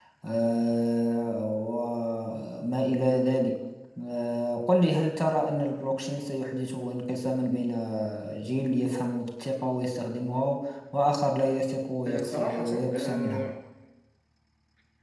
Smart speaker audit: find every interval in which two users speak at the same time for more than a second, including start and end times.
12.0-13.4

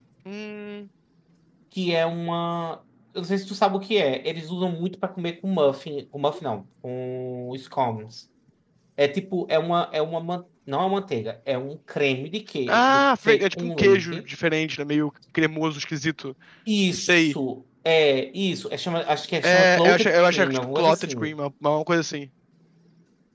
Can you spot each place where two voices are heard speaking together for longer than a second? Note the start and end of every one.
12.7-14.2, 19.4-21.3

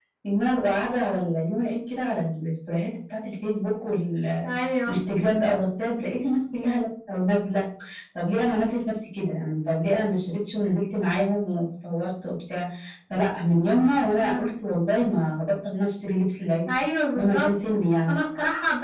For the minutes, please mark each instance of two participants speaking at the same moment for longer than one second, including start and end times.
none

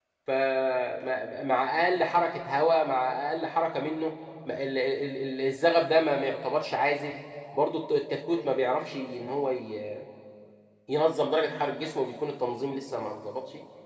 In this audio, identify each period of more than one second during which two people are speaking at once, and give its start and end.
none

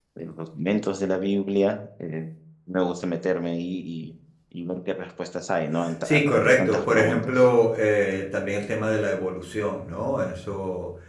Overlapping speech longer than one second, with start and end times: 6.0-7.4

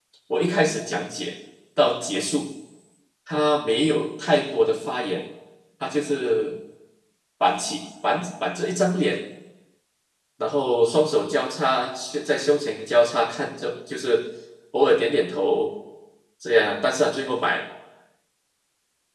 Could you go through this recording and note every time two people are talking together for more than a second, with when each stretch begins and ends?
none

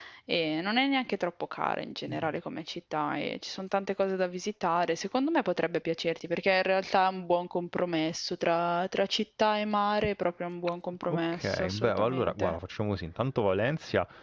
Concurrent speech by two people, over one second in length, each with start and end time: 11.1-12.5

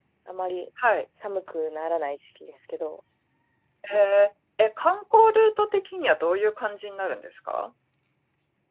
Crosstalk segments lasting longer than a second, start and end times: none

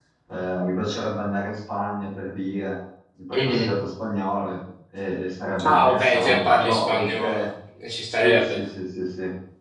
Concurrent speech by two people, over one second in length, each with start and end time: 5.6-7.4

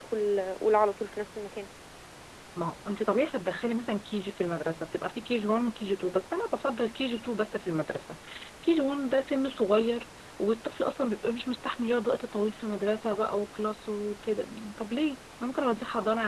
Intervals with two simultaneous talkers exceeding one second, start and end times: none

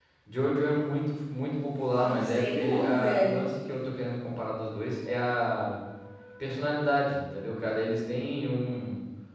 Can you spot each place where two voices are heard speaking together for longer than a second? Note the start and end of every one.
2.0-3.5

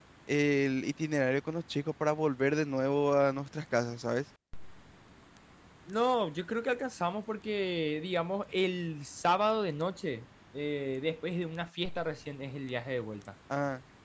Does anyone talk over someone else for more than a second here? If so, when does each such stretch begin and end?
none

